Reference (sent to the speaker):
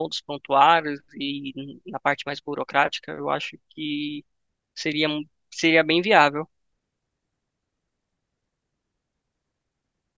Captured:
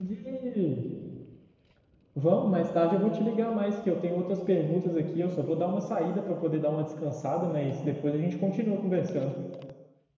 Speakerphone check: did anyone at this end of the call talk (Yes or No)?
Yes